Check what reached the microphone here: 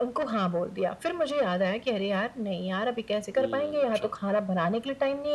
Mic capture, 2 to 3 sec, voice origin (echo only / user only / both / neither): echo only